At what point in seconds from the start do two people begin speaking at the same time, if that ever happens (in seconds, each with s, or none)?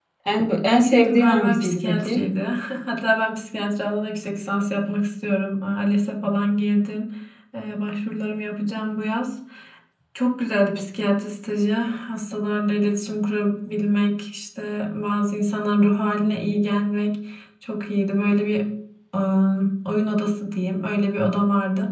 0.7 s